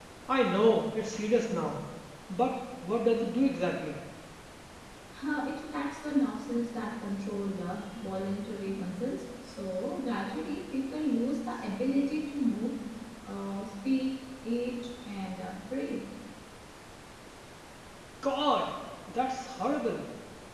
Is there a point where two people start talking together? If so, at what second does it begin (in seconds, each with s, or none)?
none